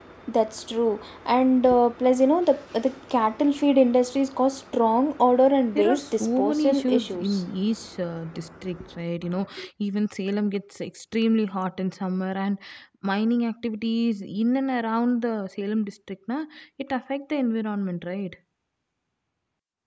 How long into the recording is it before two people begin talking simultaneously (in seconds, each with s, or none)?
5.8 s